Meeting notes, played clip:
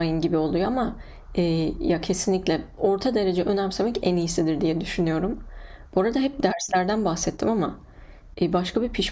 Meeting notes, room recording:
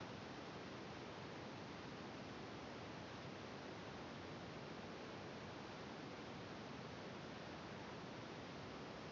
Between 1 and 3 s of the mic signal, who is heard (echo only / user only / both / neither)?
neither